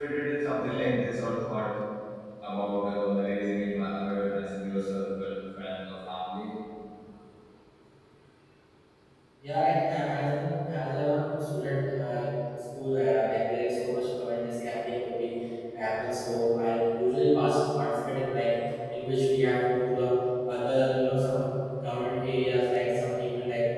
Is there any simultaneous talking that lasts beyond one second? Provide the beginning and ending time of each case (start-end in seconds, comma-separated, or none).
none